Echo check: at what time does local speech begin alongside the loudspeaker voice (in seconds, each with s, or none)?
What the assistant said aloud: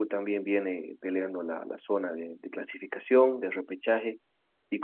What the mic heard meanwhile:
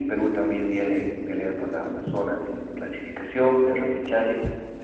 none